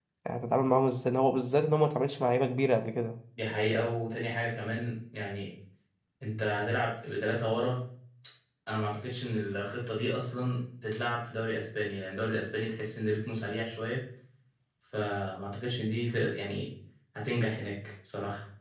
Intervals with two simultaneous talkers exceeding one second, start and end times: none

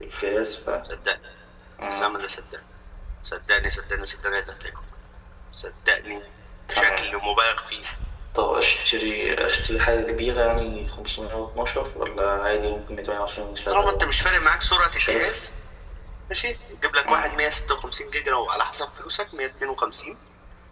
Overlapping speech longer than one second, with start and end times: none

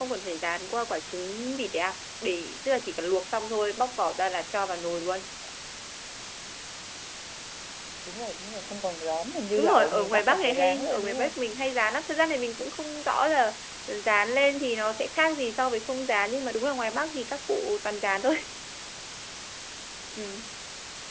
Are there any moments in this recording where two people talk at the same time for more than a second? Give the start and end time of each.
9.6-11.3

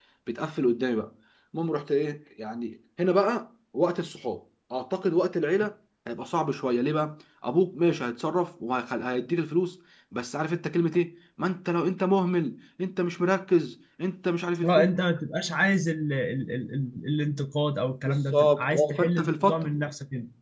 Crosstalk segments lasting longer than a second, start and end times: 18.0-19.7

